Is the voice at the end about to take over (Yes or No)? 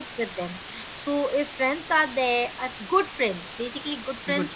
No